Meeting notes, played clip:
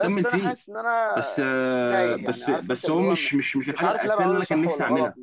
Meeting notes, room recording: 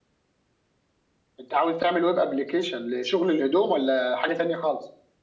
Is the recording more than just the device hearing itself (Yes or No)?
Yes